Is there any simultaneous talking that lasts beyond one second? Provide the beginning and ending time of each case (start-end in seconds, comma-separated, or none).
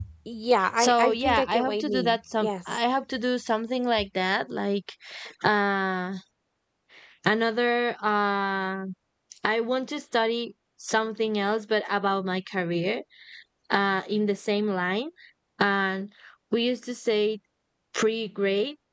0.8-2.8